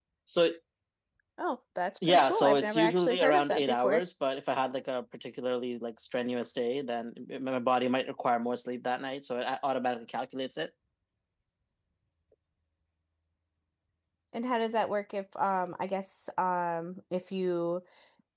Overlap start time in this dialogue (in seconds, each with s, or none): 2.1 s